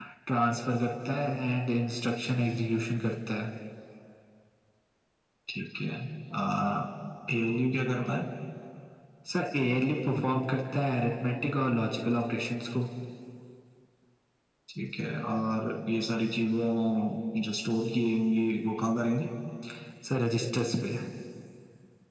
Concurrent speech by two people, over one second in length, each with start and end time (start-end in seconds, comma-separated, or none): none